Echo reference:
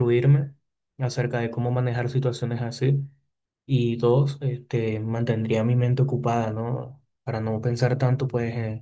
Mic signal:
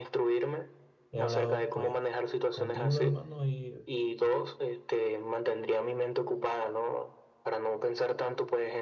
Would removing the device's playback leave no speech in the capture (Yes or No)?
No